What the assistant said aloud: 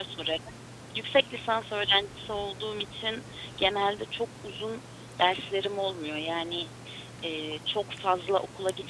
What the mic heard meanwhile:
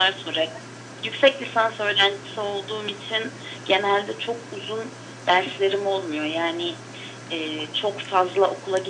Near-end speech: none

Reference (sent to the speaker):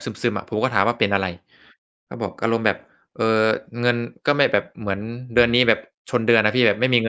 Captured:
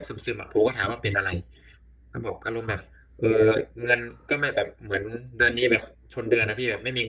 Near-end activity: none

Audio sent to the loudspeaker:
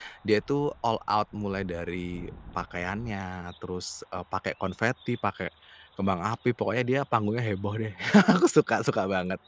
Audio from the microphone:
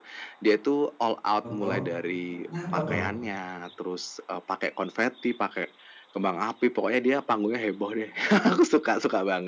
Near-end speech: present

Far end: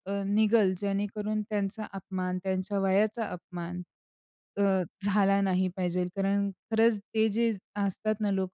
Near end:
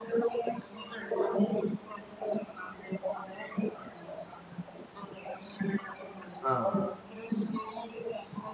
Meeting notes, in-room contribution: present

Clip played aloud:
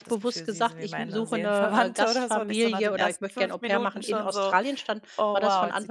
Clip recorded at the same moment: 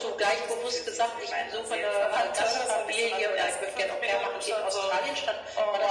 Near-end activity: none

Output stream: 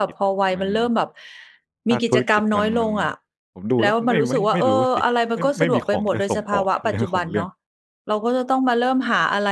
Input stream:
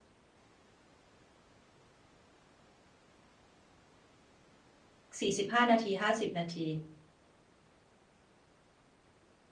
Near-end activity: present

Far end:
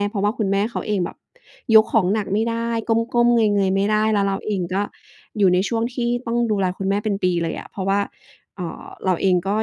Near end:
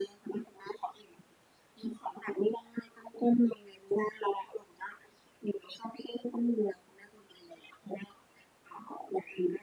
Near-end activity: none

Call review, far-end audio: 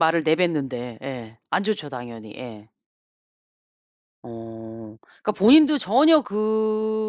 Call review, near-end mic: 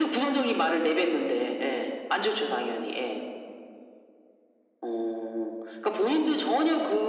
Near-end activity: none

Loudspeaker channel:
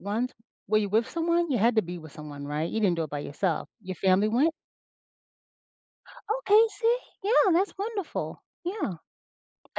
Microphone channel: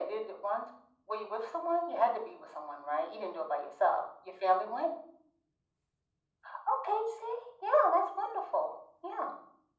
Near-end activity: none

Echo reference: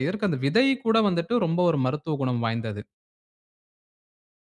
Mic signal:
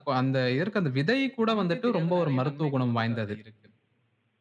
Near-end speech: present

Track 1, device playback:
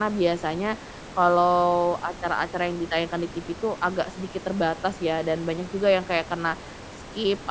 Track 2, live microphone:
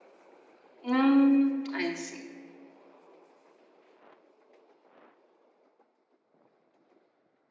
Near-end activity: present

